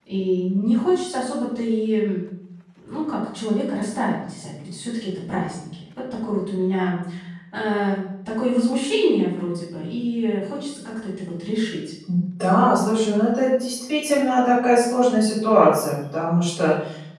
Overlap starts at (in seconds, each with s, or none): none